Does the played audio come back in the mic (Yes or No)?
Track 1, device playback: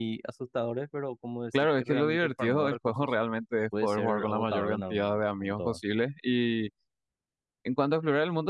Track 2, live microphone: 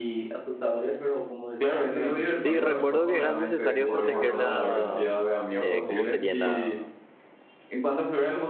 Yes